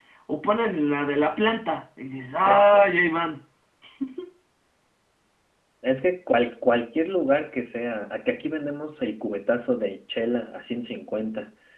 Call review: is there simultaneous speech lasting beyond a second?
No

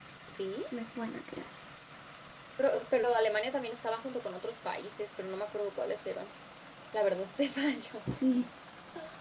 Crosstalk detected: No

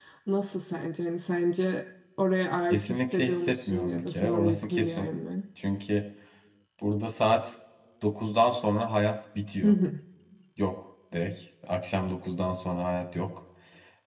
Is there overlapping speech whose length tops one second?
Yes, from 2.7 s

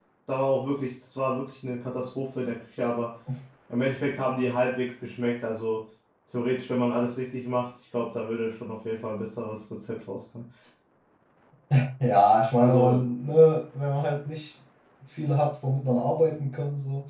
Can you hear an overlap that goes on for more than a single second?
No

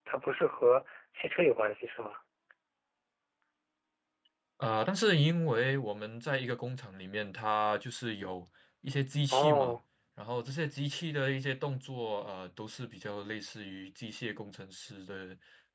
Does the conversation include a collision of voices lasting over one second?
No

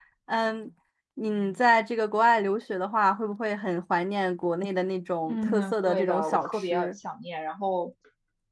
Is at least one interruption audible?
Yes, from 5.3 s

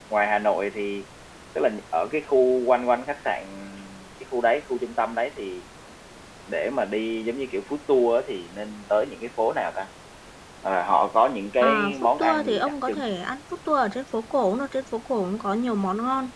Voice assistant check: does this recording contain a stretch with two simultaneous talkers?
Yes, from 11.6 s

